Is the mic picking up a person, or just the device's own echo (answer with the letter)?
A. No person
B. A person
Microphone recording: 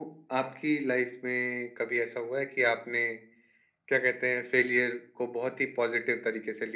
A